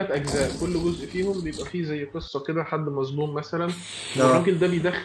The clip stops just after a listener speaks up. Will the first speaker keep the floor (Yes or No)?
Yes